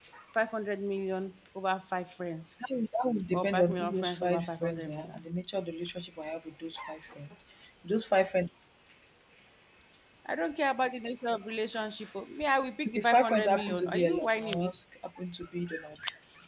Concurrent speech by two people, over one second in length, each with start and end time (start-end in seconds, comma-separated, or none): 3.3-5.2, 12.8-14.7